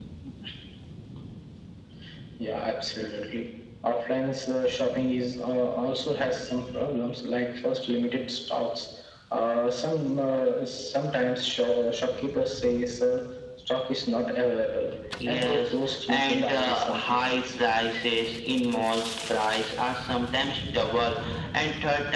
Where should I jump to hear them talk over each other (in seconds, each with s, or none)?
15.3 s